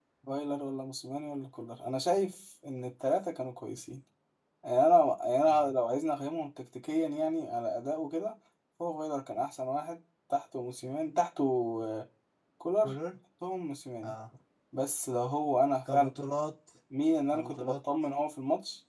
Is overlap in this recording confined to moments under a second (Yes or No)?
Yes